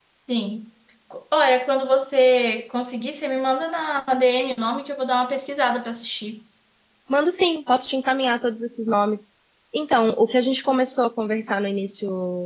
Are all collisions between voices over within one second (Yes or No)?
Yes